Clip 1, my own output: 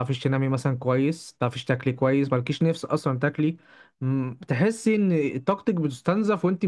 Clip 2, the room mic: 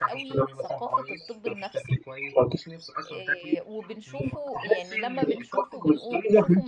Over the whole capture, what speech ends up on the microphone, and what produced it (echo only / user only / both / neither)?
both